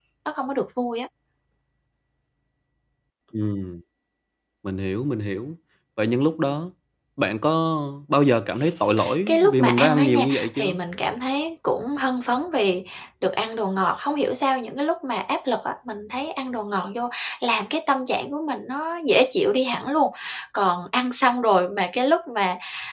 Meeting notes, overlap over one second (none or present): present